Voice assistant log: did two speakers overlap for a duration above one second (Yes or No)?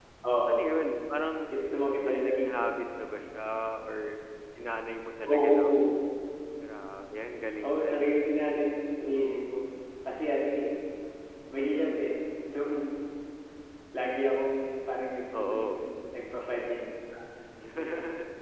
No